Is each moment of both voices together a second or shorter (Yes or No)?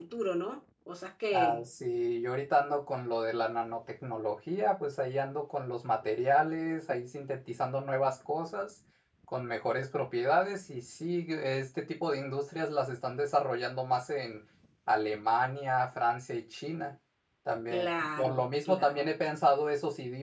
No